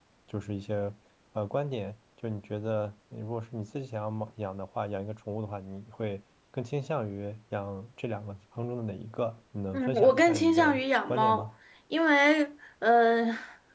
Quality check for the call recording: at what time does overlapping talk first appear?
9.7 s

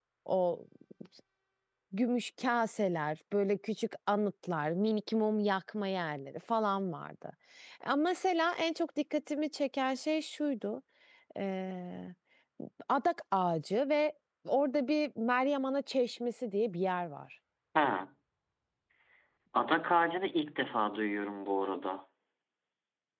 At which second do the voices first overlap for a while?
none

